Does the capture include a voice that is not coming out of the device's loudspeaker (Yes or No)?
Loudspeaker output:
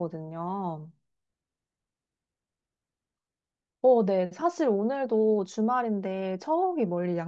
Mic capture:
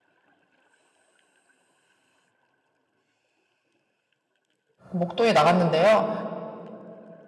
Yes